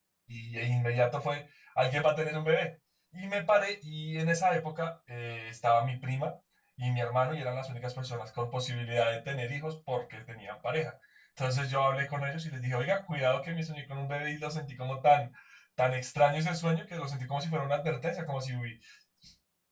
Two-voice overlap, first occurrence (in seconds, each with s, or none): none